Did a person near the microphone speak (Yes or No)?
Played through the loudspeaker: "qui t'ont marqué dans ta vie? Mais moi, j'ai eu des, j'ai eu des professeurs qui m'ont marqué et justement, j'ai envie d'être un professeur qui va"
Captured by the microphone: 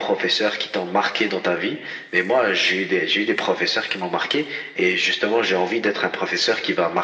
No